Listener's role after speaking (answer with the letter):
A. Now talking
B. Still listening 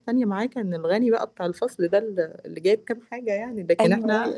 B